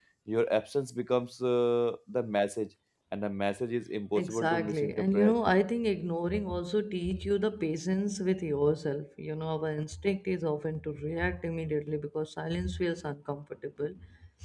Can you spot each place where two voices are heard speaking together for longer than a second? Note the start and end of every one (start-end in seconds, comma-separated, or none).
4.2-5.3